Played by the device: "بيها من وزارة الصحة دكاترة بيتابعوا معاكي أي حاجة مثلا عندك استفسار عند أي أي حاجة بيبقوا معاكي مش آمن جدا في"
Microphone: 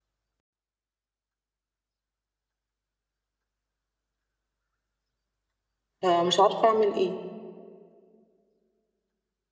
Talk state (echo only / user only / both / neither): user only